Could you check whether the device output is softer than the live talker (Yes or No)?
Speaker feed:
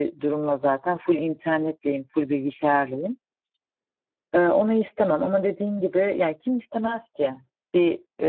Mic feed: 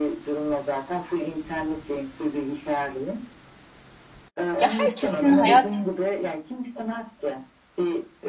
Yes